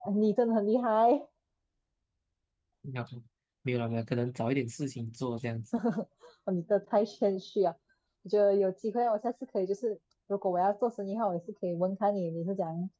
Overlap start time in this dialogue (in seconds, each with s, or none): none